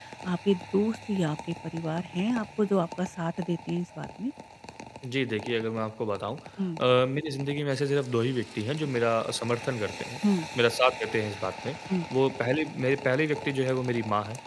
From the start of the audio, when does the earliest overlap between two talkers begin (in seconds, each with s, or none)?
none